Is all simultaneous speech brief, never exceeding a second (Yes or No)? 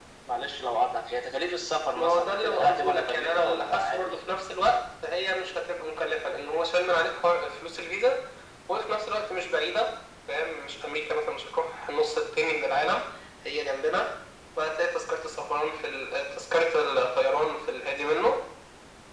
No